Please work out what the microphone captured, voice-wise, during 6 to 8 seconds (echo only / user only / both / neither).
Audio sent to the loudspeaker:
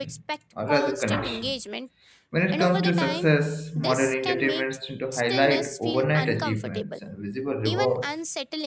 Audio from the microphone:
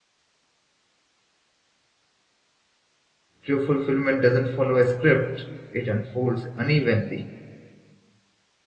user only